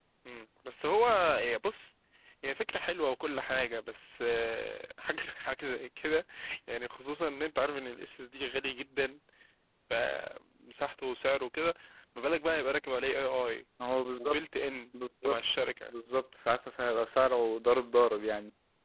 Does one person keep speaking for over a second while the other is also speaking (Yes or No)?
No